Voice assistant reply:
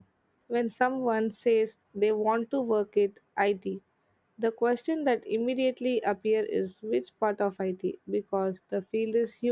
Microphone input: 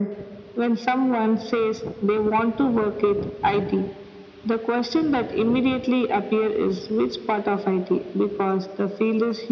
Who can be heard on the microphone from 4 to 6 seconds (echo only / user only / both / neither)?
echo only